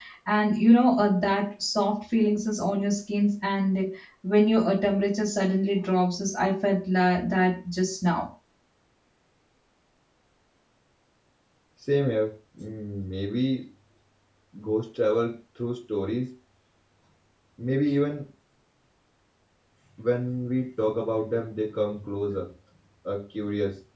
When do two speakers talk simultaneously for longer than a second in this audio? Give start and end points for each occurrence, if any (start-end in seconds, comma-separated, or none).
none